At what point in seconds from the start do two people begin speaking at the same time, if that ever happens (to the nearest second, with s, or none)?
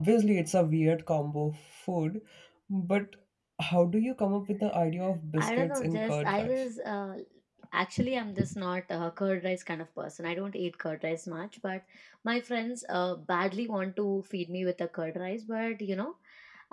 5 s